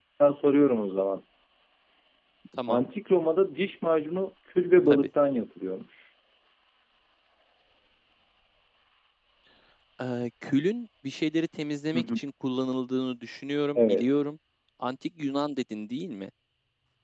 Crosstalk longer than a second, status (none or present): none